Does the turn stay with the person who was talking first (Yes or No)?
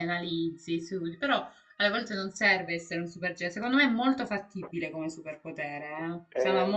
No